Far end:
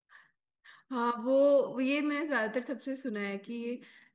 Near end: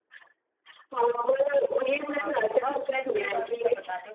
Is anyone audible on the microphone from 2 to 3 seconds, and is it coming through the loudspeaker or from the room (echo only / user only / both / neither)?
both